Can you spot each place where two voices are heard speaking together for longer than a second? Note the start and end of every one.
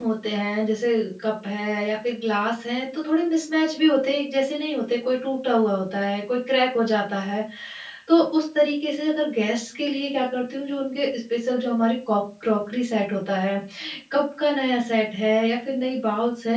none

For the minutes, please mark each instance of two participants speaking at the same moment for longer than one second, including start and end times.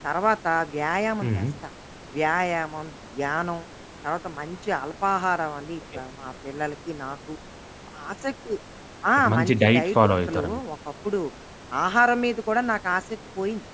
9.2-10.6

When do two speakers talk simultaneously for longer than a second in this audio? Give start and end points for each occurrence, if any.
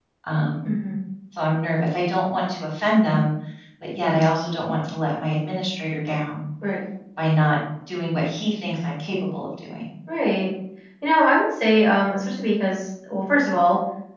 none

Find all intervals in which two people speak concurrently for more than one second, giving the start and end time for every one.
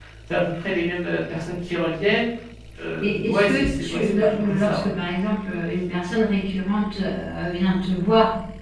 3.0-4.9

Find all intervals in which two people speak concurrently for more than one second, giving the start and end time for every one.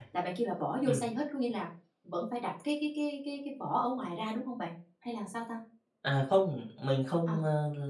none

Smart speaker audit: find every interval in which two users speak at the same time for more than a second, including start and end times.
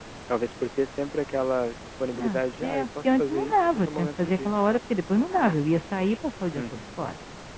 2.1-4.5

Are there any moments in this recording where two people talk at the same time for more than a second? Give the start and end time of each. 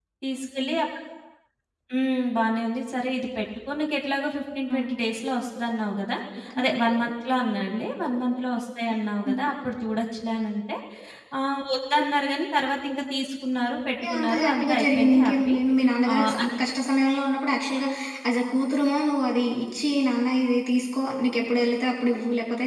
14.0-15.5

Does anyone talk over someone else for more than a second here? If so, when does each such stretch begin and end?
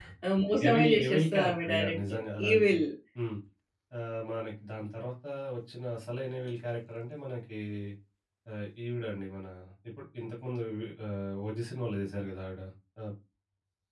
0.6-2.7

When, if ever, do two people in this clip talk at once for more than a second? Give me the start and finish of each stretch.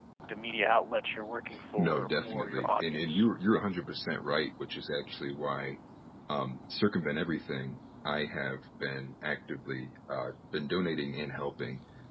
1.8-3.2

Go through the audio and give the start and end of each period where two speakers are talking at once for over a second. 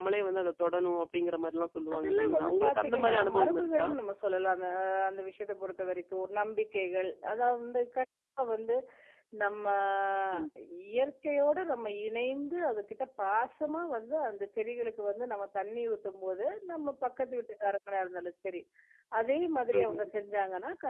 1.9-3.9

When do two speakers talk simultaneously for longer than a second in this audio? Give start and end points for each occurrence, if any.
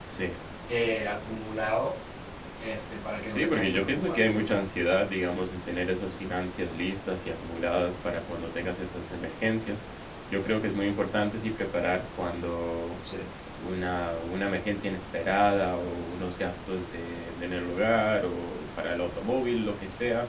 3.3-5.0

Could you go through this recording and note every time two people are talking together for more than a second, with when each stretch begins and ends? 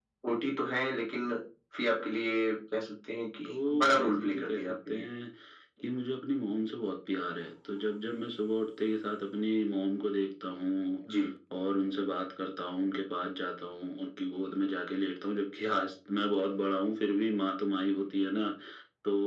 3.5-5.1

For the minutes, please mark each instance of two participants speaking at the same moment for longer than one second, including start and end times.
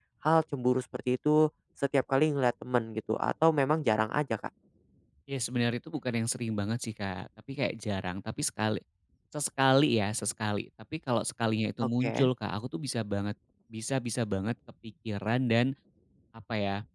none

